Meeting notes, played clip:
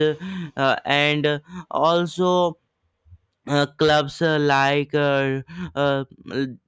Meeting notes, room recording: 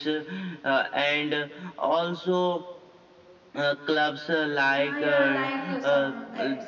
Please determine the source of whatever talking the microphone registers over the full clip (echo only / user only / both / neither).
both